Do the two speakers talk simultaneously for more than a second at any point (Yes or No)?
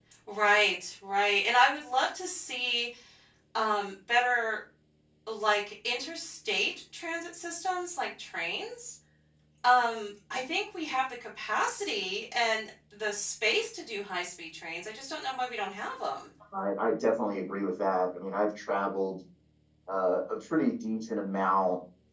No